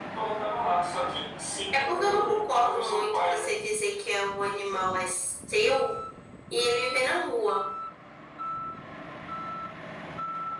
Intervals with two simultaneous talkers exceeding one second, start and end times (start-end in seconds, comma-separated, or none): 1.7-3.5